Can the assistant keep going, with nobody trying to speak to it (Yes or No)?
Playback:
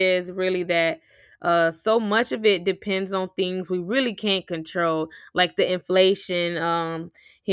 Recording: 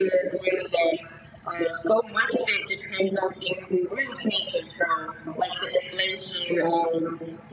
Yes